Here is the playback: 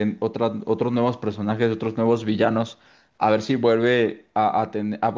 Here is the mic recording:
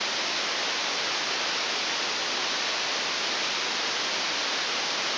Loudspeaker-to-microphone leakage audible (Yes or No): No